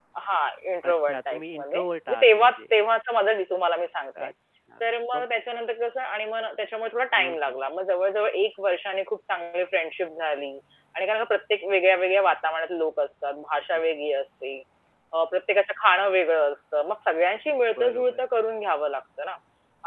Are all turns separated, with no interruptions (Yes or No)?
No